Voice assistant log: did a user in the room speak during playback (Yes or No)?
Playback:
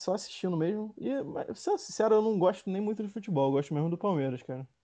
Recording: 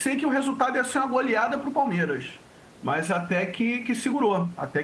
Yes